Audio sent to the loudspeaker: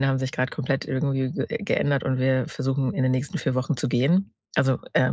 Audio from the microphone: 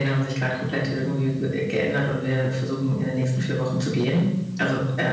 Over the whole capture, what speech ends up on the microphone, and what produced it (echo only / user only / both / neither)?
echo only